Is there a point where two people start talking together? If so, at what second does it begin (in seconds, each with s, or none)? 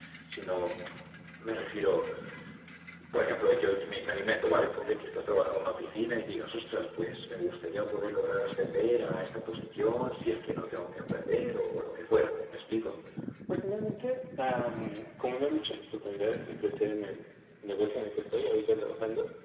none